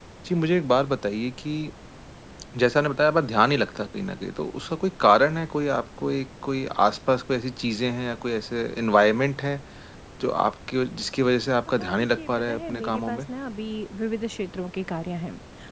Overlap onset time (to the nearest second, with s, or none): 12 s